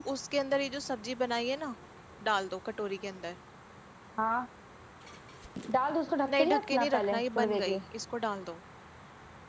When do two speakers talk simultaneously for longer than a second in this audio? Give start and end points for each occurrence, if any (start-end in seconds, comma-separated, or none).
6.3-7.8